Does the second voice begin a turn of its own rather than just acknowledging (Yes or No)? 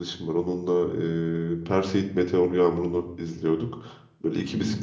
No